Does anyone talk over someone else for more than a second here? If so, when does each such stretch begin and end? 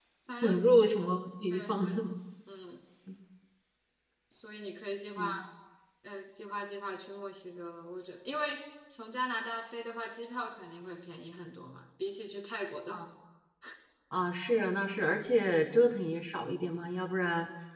none

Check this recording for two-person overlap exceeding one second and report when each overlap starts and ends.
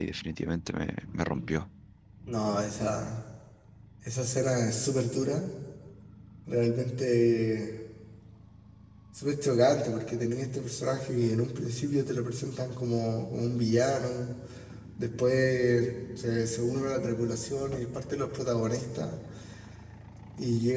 none

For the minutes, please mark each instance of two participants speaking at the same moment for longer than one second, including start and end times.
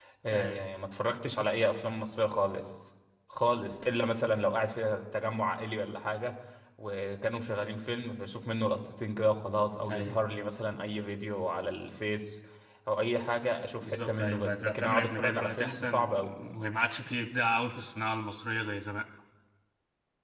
13.8-16.1

